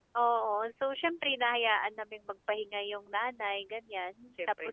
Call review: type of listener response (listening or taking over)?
listening